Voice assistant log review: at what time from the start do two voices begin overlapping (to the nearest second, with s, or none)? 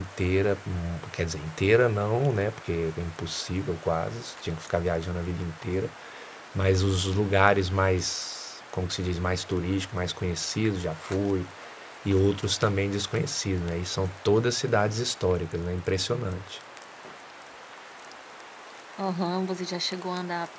none